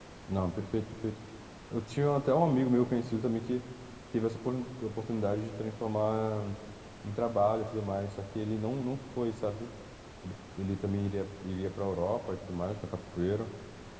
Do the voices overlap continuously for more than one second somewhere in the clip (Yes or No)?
No